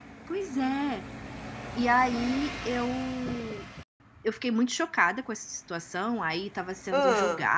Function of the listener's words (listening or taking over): listening